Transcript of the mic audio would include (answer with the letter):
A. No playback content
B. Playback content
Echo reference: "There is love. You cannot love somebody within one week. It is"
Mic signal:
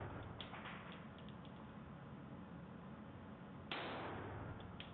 A